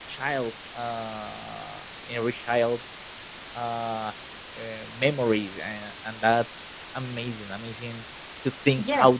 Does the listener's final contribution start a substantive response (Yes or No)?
Yes